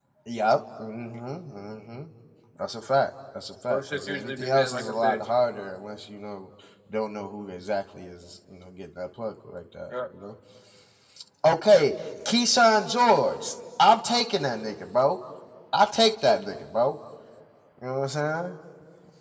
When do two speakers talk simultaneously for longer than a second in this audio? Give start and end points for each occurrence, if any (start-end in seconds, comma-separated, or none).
3.7-5.3